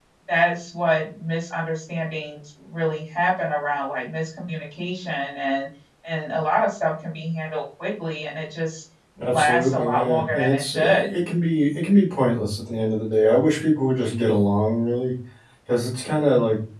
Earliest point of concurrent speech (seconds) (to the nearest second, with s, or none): 9 s